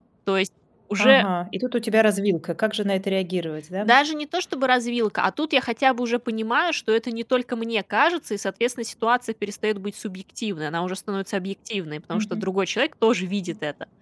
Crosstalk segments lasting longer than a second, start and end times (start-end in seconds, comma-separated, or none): none